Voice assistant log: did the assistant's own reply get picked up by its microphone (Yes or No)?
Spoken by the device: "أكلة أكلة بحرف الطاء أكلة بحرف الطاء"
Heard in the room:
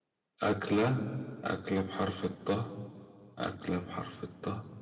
Yes